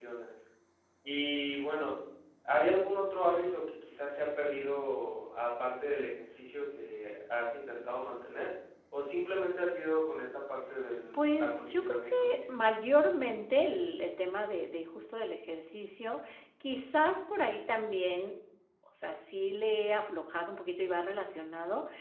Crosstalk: present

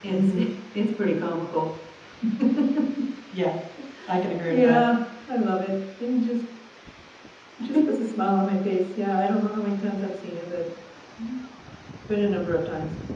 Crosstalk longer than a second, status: none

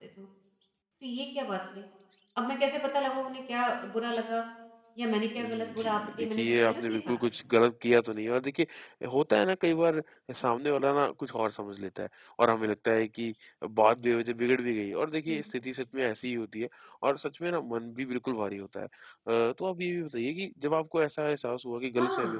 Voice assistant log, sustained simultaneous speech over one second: present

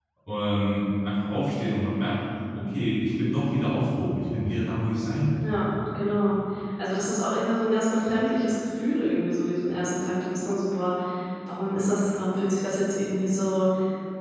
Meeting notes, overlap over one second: none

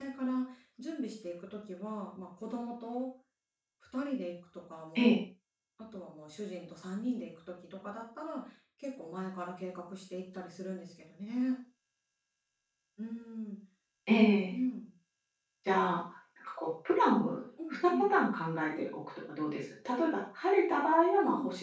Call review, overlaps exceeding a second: none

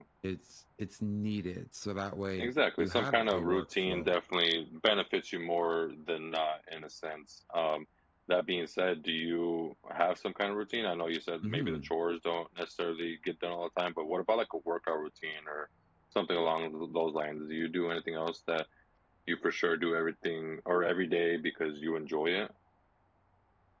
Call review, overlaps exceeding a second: present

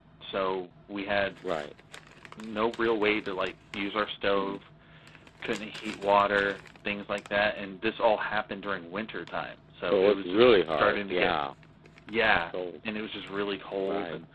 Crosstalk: present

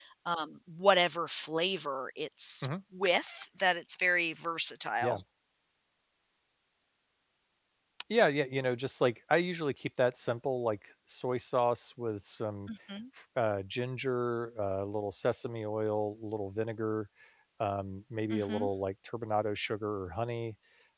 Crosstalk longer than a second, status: none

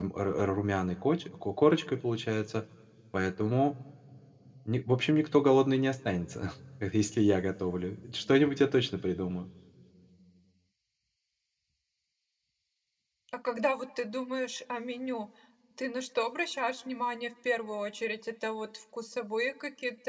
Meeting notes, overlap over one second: none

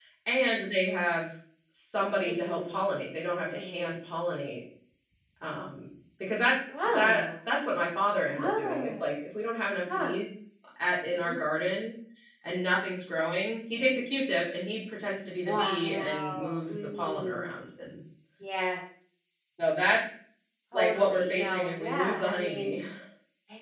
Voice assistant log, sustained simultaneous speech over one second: present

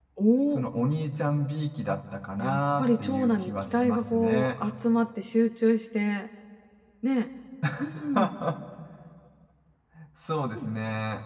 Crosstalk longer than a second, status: present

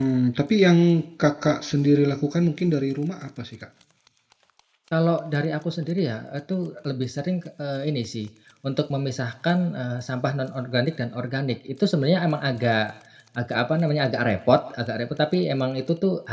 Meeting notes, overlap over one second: none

